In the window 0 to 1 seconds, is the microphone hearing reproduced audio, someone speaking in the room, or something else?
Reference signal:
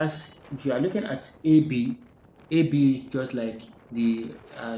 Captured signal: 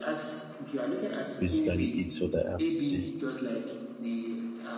echo only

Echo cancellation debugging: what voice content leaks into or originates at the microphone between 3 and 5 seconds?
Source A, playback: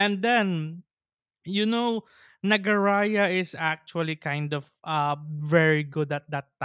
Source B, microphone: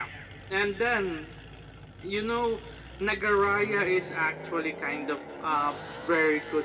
echo only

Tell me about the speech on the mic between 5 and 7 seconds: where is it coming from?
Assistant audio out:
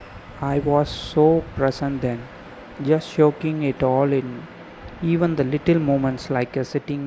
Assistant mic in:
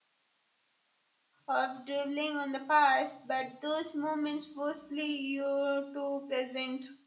user only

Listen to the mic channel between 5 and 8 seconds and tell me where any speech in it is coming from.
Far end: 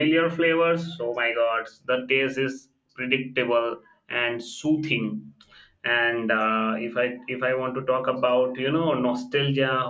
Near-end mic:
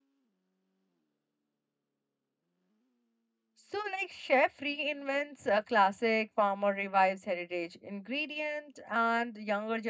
user only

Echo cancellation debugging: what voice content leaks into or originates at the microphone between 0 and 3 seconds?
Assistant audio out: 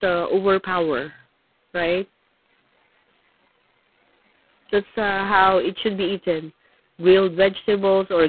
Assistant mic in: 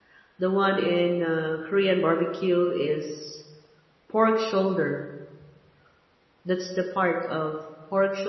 user only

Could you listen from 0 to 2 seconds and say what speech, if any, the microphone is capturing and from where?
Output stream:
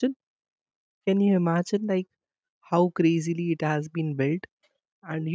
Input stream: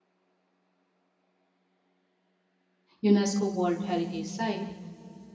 neither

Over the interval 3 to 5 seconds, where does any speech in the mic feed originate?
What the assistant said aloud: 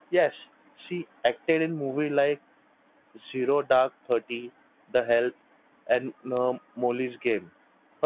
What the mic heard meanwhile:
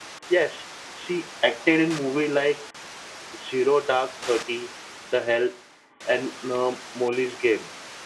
echo only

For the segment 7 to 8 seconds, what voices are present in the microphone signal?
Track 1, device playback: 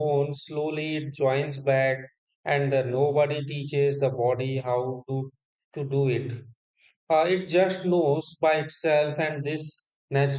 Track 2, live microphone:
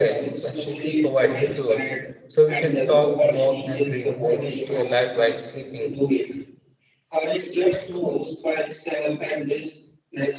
echo only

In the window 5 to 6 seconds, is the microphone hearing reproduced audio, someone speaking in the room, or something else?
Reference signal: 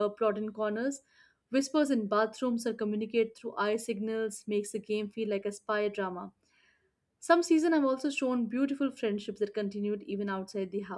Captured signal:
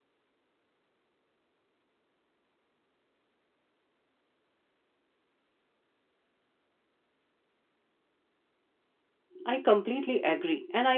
neither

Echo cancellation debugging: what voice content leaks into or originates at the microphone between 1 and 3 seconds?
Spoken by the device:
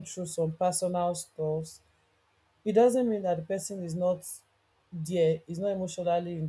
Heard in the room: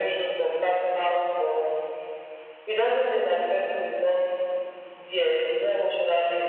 echo only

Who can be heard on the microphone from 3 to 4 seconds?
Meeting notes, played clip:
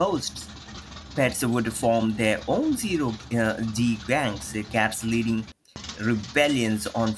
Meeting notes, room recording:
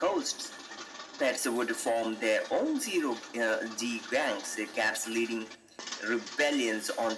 echo only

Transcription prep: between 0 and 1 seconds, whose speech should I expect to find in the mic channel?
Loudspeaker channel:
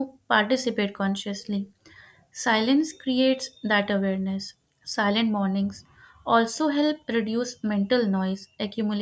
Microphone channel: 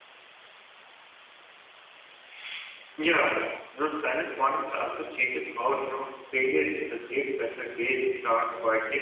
neither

